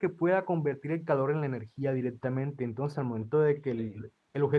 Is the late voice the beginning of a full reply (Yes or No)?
No